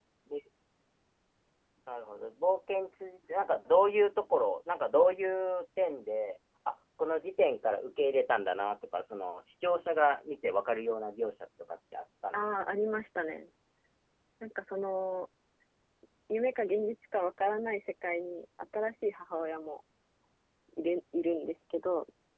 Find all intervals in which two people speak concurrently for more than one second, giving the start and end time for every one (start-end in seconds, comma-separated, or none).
none